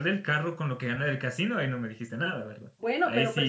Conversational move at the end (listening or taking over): taking over